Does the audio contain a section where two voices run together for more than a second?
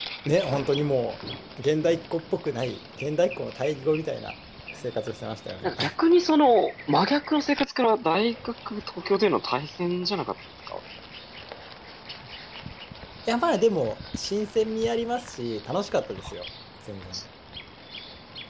No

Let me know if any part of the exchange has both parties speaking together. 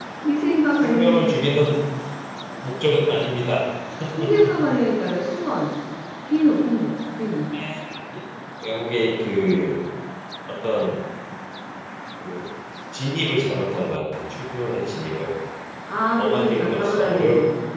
Yes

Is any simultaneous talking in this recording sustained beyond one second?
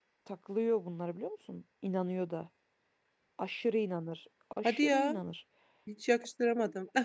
No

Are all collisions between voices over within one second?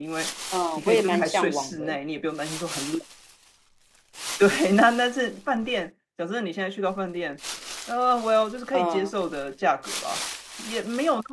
No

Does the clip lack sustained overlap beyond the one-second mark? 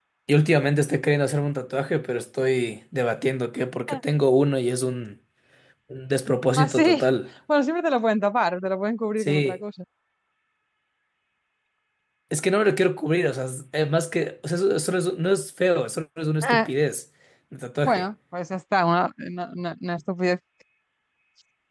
Yes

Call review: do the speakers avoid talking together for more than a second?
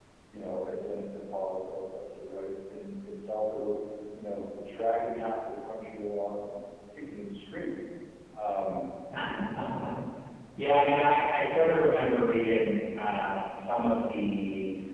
Yes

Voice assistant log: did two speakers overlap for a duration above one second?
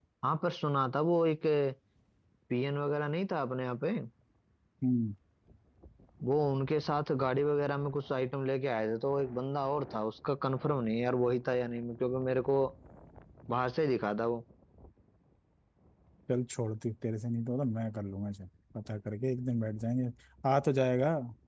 No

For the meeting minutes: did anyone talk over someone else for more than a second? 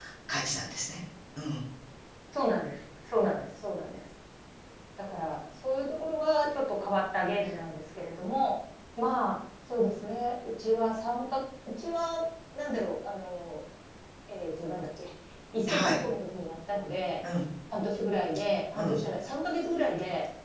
No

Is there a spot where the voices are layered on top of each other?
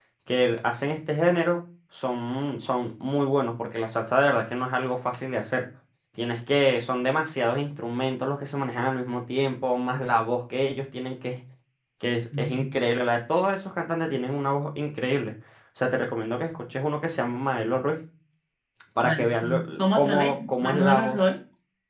Yes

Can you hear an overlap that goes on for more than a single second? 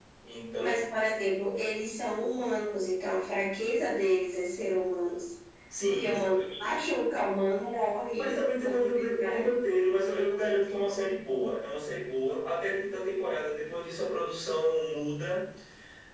Yes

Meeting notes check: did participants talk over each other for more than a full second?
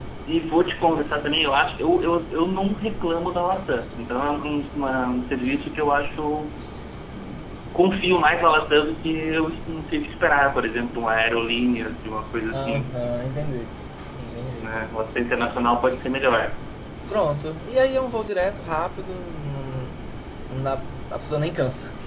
No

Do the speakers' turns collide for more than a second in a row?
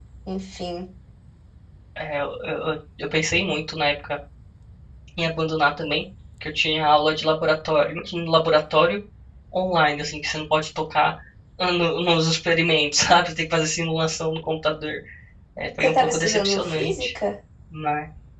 Yes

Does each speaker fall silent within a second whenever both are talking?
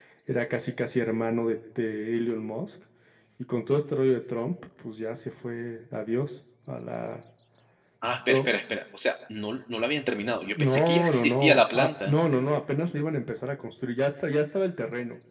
No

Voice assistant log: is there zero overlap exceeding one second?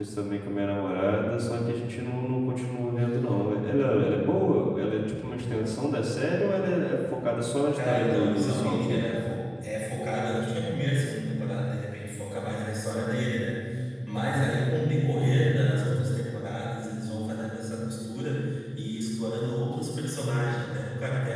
No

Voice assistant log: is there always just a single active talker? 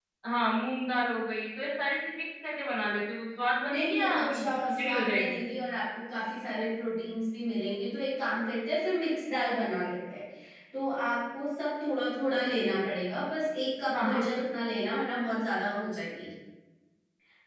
No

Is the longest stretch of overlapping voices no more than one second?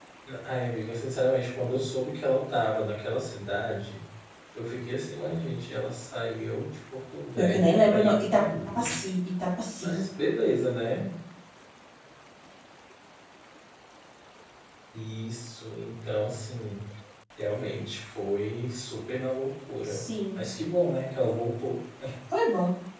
No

